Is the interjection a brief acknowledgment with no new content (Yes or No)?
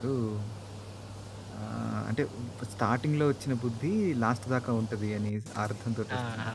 No